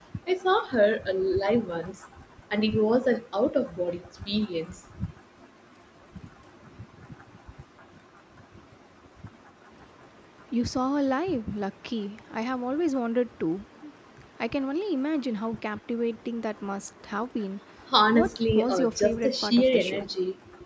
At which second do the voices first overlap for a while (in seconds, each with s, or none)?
18.1 s